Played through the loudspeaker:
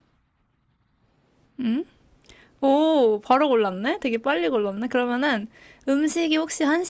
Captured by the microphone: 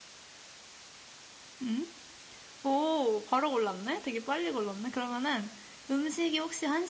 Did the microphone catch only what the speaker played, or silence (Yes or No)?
Yes